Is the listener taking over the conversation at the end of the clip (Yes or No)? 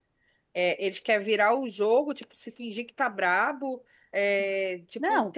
No